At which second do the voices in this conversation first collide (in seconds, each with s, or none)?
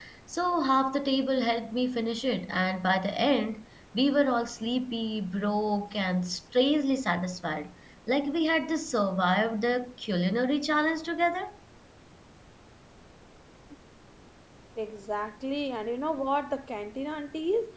none